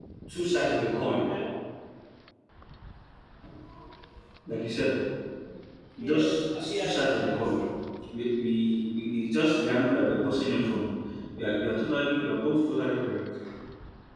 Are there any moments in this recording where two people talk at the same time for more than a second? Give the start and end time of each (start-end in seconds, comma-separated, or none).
6.1-7.5